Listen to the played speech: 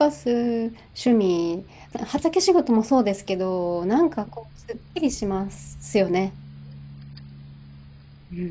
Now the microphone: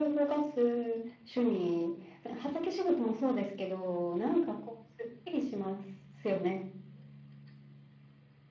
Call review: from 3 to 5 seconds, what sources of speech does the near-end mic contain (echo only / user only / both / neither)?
echo only